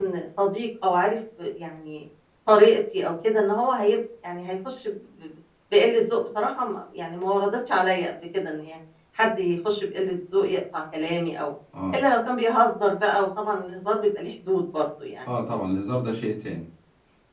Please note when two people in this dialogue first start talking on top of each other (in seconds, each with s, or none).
none